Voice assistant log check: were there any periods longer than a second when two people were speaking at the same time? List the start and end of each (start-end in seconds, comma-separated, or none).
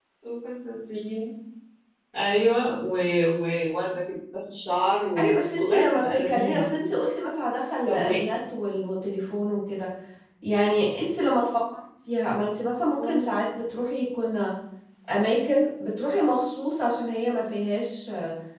5.2-6.7